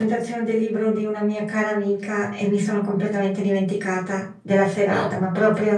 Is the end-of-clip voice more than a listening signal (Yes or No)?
No